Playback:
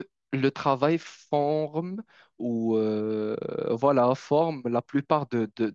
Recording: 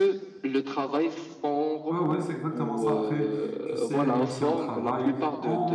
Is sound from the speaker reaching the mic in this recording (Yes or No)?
Yes